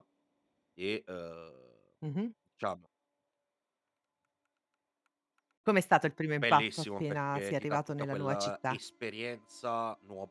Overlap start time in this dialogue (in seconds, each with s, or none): 6.4 s